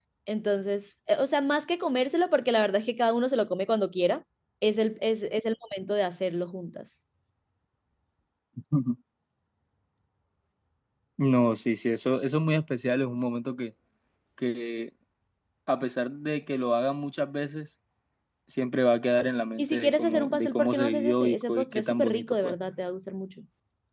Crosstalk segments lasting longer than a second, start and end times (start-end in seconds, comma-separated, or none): 19.6-22.6